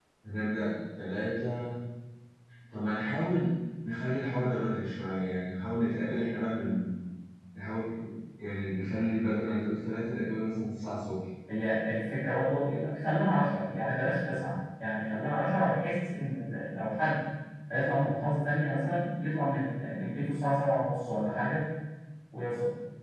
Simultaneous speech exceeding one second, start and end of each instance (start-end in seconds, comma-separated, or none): none